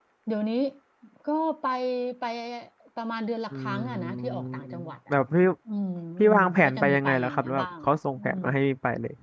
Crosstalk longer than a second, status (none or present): present